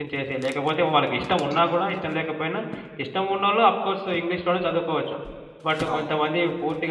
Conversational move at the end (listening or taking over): listening